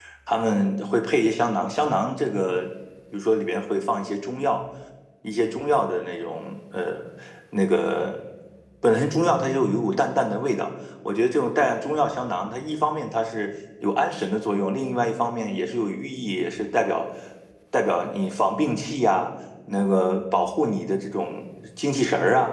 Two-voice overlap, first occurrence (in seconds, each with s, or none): none